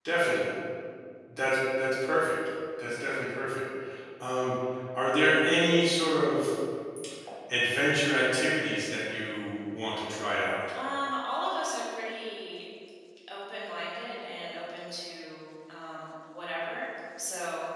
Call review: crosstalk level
none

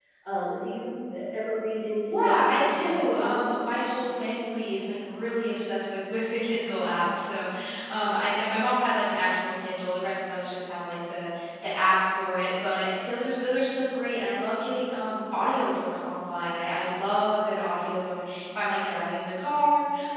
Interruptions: present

